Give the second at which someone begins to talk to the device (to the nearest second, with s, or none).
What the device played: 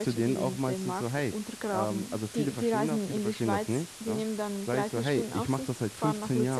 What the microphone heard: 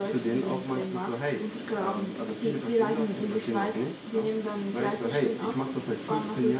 none